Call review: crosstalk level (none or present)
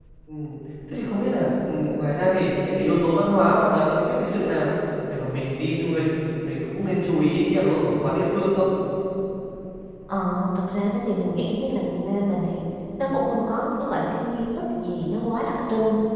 none